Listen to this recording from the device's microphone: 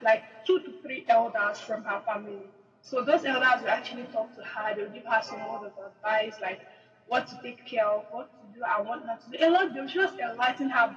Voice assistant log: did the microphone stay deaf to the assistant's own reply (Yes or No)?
No